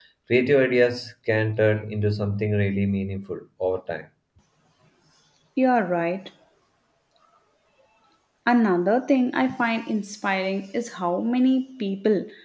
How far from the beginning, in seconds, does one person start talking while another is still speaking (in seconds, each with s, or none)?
none